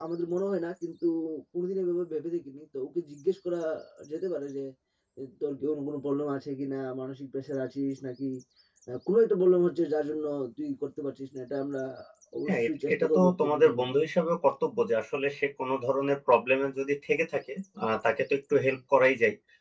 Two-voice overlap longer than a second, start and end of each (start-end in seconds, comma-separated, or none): 12.5-13.8